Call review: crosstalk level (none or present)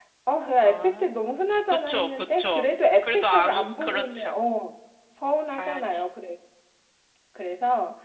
present